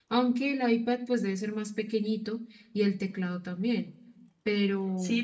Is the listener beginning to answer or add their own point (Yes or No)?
Yes